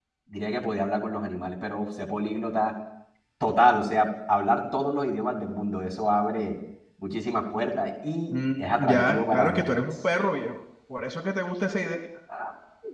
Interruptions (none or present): present